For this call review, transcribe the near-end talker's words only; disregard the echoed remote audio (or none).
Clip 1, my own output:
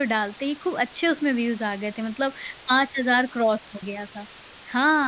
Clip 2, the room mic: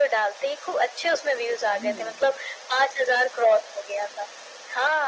हुँ।